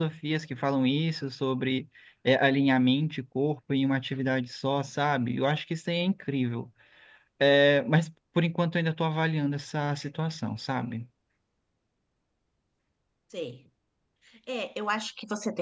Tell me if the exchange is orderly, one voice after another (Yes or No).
Yes